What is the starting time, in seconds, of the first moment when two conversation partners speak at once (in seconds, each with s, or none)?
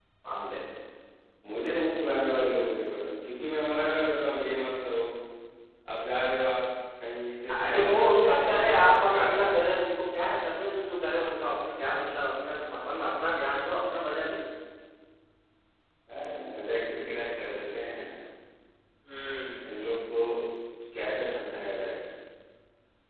7.5 s